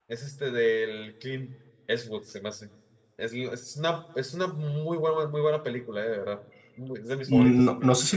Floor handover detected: Yes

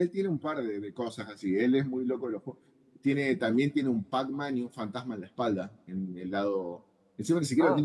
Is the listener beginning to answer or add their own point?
No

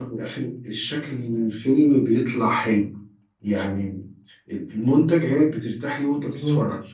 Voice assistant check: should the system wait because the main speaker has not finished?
Yes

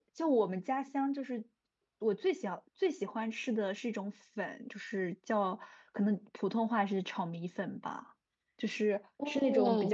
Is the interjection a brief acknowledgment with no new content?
Yes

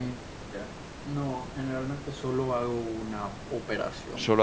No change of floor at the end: No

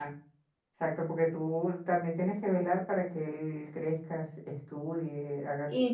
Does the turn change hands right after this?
Yes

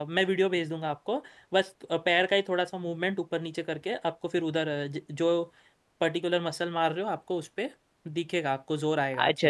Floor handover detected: Yes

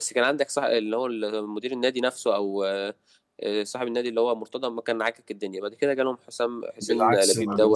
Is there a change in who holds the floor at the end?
Yes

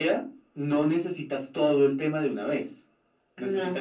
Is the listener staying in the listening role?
Yes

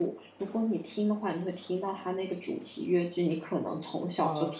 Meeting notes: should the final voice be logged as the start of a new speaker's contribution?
No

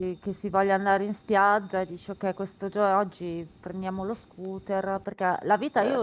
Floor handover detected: No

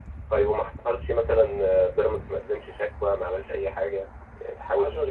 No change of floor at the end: No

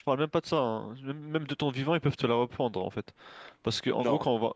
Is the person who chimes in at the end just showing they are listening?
Yes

